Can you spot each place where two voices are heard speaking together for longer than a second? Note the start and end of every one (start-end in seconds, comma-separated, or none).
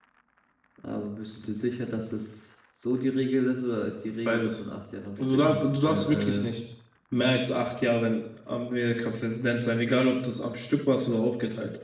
5.2-6.5